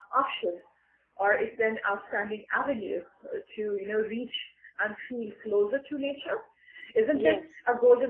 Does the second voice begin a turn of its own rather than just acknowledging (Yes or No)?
No